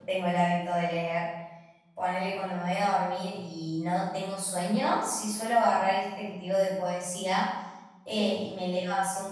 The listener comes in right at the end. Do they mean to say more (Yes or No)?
No